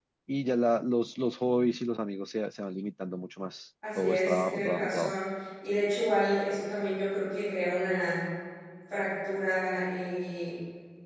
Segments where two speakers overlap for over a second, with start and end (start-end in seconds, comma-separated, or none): 4.0-5.2